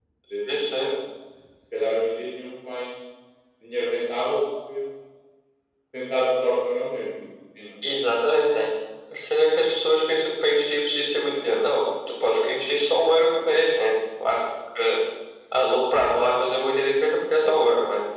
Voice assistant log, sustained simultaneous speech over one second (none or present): none